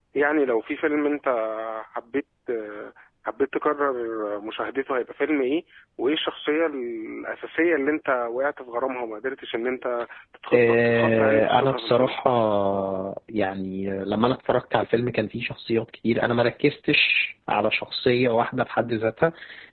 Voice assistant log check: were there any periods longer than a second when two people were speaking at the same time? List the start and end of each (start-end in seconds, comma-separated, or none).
10.5-12.1